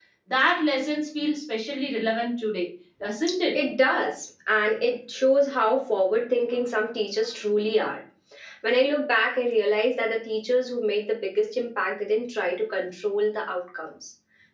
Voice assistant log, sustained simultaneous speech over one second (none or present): none